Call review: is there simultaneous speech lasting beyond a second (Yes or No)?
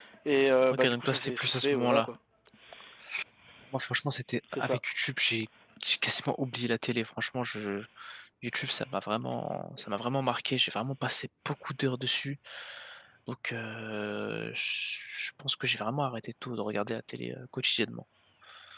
Yes